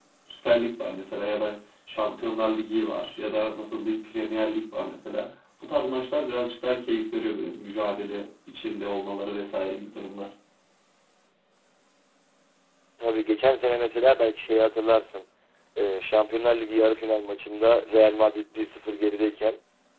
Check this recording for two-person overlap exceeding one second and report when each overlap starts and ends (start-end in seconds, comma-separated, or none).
none